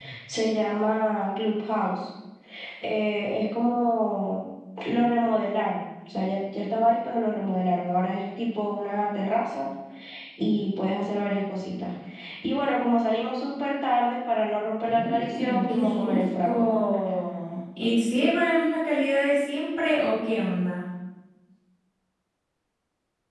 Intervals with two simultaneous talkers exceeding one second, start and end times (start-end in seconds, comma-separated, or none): 14.9-16.7